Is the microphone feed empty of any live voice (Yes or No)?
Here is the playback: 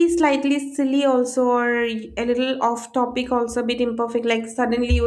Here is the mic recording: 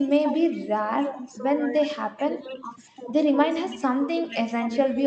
No